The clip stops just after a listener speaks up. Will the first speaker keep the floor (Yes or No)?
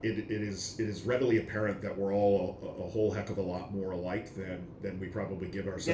No